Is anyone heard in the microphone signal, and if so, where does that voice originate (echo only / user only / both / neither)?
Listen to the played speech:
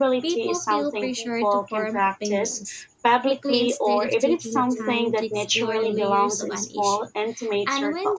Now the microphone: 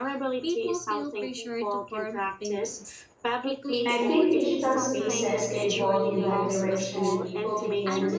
both